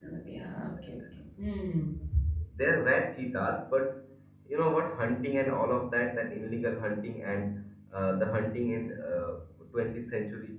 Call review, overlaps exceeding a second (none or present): none